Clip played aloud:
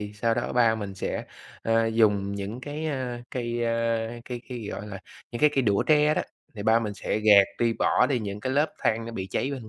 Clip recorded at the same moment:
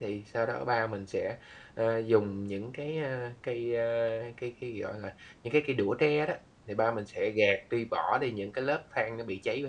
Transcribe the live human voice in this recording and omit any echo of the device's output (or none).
none